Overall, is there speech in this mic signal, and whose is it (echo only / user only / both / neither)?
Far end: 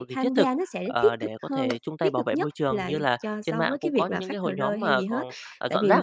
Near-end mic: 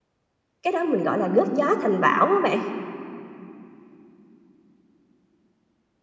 user only